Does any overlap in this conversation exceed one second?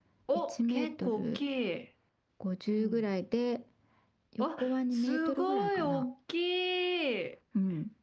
Yes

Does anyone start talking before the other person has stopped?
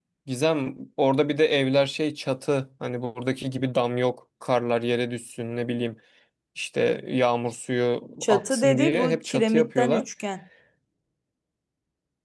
Yes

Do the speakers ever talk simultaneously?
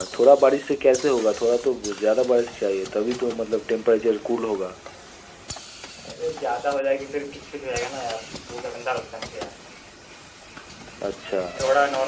No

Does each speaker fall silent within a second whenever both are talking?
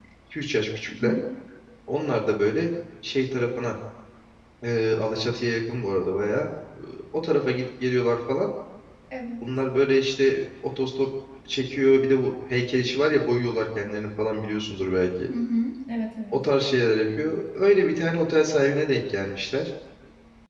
Yes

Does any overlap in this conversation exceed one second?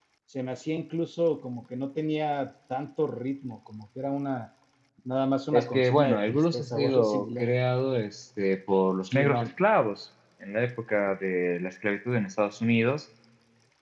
Yes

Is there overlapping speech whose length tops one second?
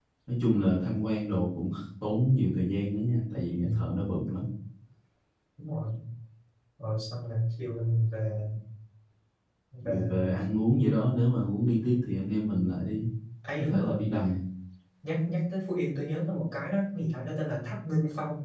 No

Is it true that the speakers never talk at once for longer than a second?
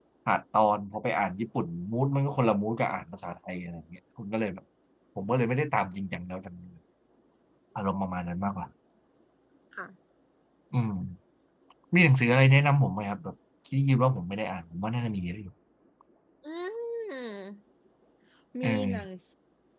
Yes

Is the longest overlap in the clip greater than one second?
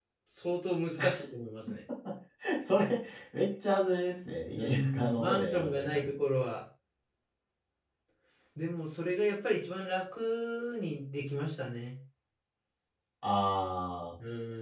Yes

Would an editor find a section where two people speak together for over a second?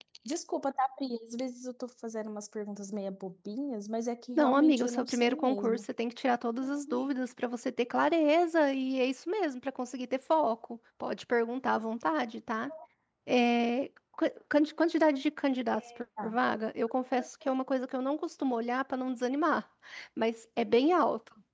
Yes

